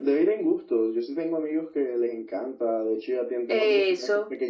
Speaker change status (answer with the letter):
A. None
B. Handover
A